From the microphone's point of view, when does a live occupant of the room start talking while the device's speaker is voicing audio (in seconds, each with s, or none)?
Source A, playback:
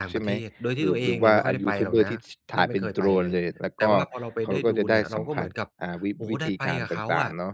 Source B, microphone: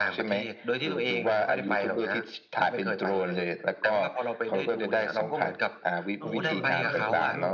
6.2 s